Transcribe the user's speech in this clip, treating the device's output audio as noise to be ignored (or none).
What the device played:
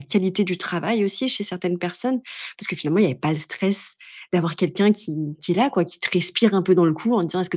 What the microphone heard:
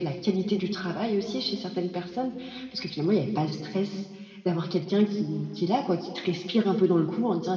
none